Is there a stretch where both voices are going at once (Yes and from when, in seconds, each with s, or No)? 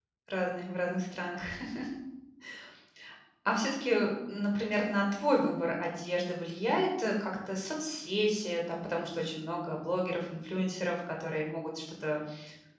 No